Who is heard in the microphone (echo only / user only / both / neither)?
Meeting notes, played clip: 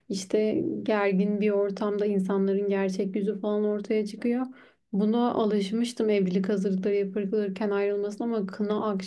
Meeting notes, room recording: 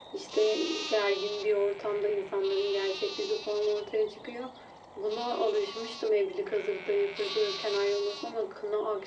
echo only